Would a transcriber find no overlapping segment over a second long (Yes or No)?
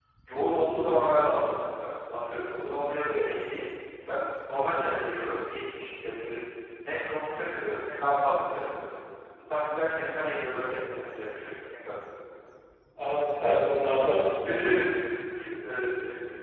Yes